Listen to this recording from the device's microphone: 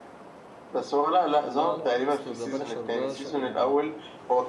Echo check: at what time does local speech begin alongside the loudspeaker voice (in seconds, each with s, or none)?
1.4 s